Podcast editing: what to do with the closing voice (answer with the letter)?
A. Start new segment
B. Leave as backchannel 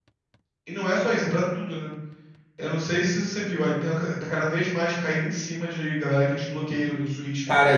A